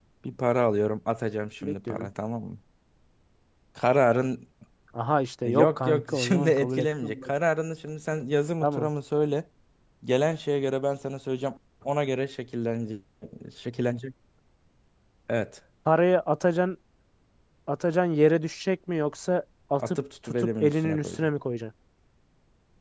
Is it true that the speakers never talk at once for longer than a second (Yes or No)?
No